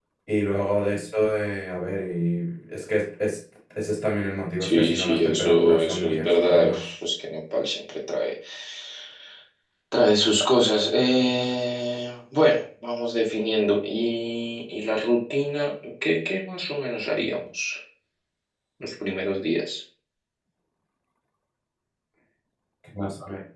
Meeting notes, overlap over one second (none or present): present